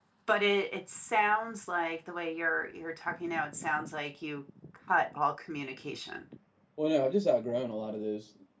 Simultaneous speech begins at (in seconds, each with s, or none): none